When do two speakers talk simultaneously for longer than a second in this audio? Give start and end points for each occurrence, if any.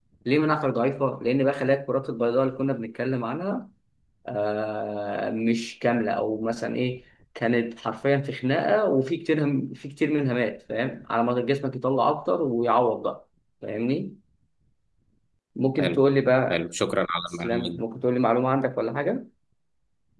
none

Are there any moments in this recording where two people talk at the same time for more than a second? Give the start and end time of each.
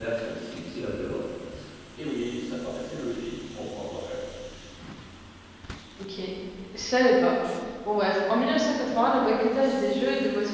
none

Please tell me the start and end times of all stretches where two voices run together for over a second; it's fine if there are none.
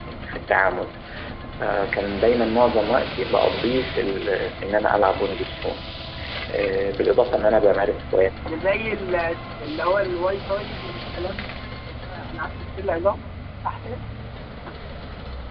none

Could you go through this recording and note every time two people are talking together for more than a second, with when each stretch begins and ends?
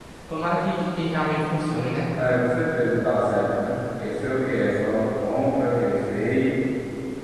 none

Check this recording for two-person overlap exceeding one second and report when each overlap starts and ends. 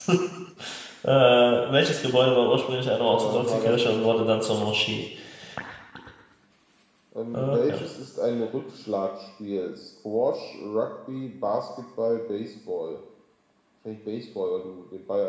3.1-4.3

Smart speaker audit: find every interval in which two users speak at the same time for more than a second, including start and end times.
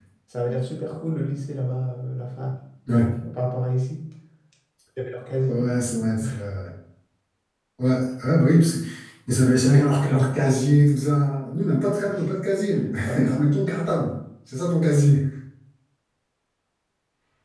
none

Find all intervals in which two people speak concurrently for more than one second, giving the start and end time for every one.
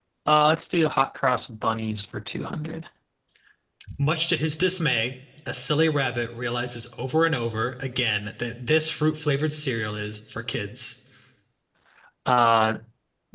none

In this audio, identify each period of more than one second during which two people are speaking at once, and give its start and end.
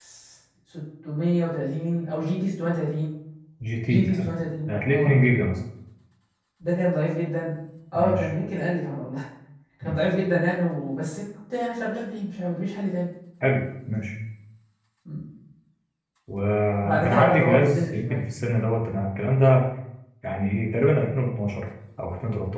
16.8-18.2

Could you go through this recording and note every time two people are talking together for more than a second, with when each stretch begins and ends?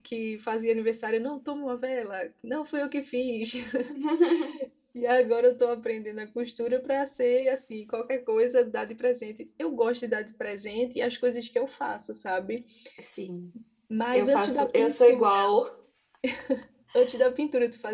14.1-15.5

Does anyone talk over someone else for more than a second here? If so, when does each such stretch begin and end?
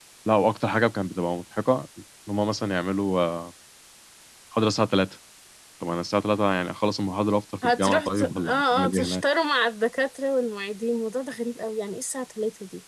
7.6-9.2

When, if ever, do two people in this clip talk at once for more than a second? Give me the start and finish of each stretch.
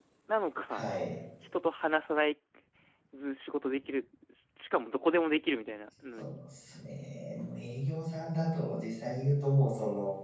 none

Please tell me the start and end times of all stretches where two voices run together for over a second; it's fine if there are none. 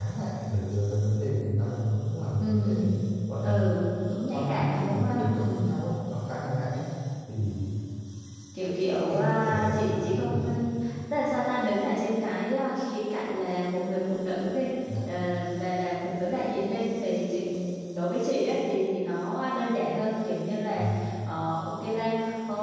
4.3-5.7, 9.1-10.5

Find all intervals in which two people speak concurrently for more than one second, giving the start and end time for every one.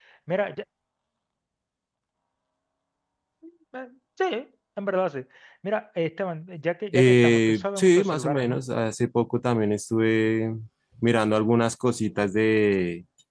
6.9-8.6

